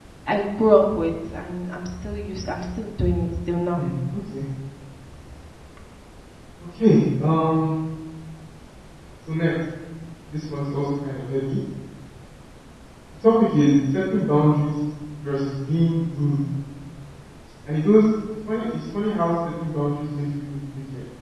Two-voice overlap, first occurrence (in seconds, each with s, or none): none